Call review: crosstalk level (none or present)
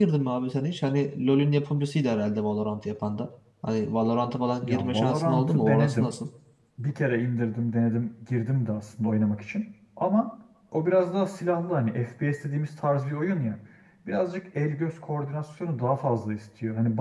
present